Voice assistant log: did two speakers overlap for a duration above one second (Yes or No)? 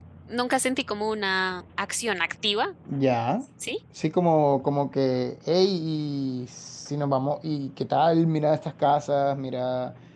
No